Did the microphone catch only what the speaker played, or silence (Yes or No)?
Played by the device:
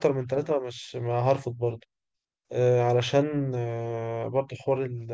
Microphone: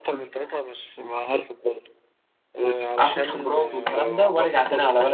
No